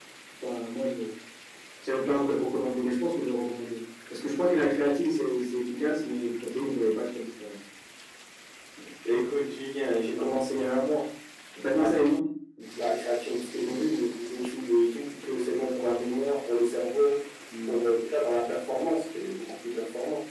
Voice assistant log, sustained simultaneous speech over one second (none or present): none